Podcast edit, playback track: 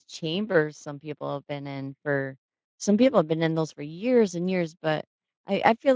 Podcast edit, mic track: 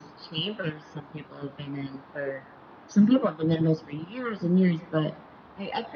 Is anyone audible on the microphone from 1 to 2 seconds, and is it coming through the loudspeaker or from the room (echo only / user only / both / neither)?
echo only